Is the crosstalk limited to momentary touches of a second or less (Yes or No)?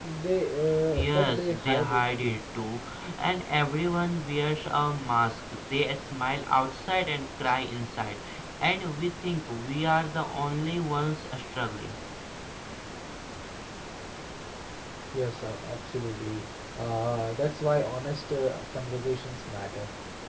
No